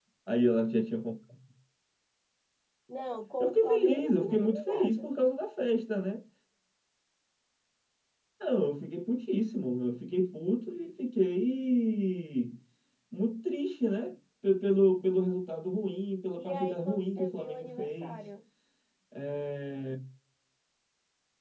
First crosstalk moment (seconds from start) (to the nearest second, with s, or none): 3 s